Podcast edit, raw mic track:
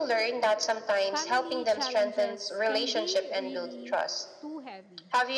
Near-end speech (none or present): present